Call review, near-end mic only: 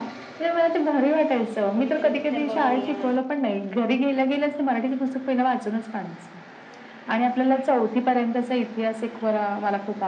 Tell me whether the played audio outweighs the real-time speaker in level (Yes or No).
Yes